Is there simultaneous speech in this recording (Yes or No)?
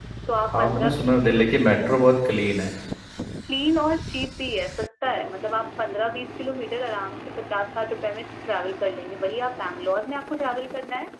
Yes